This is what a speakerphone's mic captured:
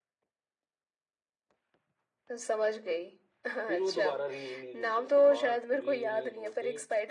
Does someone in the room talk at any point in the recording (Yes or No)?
Yes